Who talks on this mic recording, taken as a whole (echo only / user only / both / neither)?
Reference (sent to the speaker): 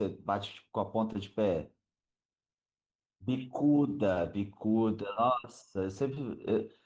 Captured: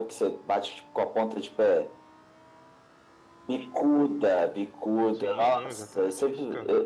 both